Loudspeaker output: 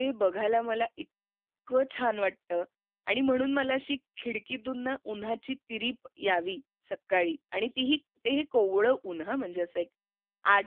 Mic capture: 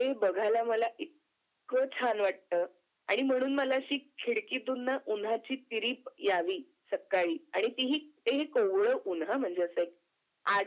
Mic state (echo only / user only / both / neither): echo only